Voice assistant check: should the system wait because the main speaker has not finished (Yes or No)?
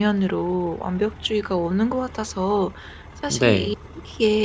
Yes